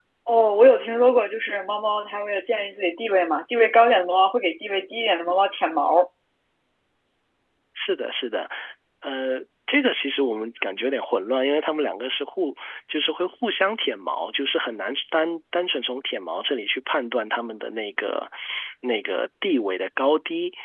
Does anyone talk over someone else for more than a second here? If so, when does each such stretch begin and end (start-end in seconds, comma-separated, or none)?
none